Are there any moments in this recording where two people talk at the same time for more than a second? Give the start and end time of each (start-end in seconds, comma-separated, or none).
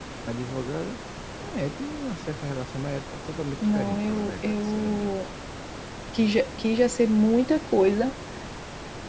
3.8-5.1